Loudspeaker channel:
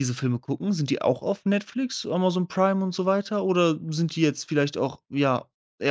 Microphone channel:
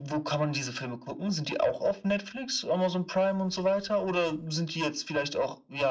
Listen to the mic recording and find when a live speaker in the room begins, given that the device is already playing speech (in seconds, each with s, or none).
none